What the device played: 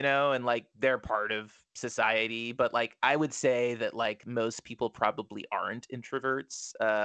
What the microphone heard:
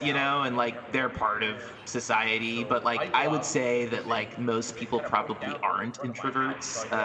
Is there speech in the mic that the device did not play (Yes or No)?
Yes